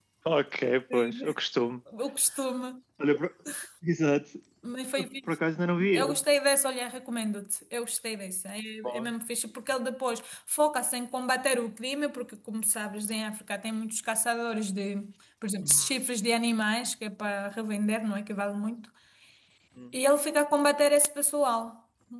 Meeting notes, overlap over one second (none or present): none